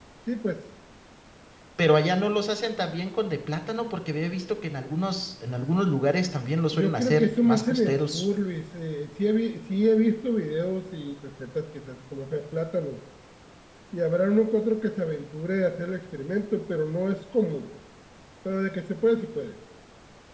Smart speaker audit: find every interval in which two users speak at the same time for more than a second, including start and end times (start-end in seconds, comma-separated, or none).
6.7-8.2